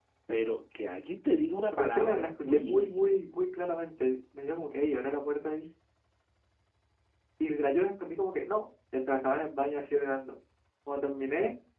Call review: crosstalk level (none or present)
present